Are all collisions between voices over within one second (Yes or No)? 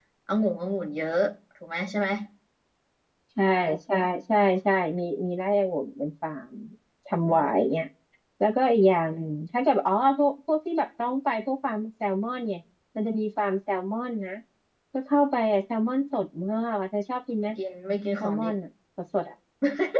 Yes